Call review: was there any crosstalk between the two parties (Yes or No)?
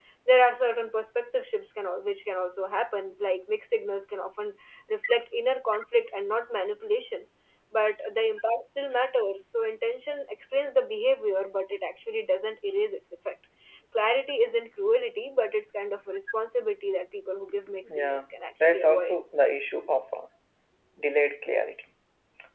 Yes